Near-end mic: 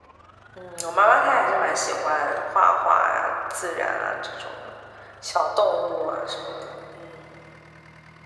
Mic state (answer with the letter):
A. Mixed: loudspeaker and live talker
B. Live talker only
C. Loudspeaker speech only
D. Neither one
C